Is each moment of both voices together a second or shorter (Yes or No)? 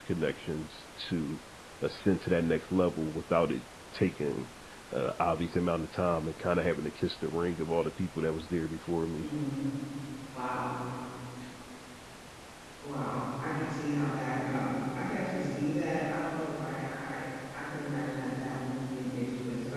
Yes